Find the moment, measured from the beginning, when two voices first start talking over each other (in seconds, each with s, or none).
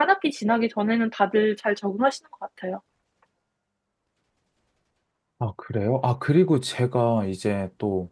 none